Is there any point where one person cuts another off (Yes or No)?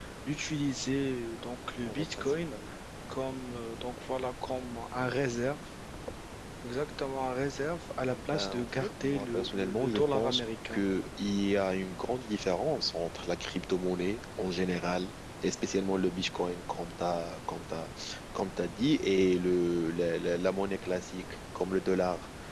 Yes